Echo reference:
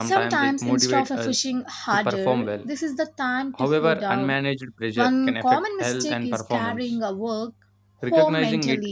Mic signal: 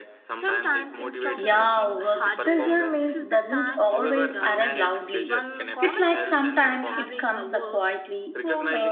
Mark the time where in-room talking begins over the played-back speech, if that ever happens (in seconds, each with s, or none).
1.3 s